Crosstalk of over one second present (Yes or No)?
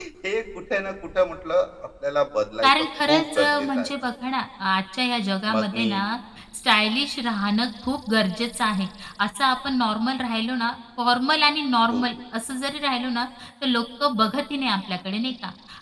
Yes